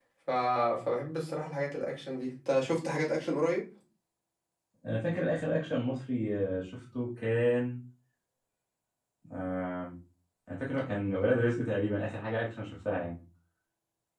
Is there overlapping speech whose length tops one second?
No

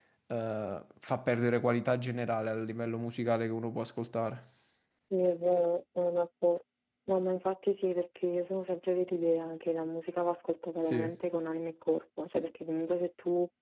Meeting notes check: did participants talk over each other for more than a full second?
No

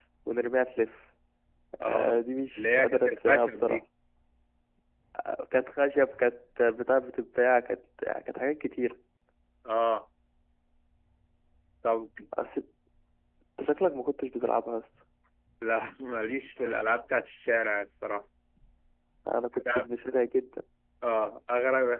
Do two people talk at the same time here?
Yes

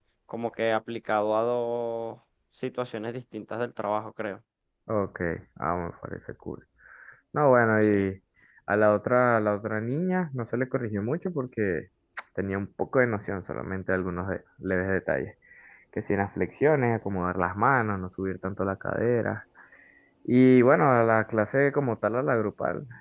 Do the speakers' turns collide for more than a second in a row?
No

